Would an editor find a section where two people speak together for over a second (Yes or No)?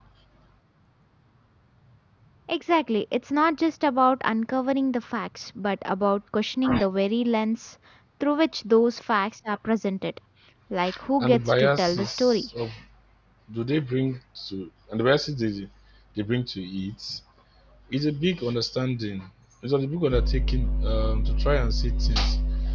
Yes